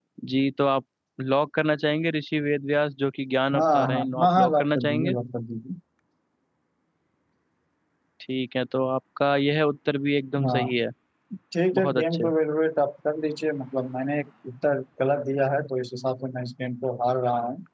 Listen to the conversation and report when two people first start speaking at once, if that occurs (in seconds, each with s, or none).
3.6 s